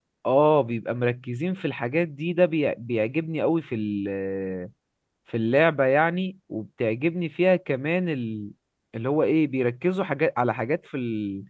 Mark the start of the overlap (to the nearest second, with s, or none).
none